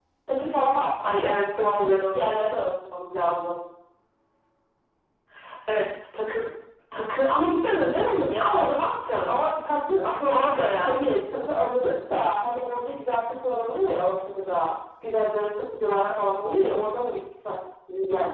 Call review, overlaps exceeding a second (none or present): present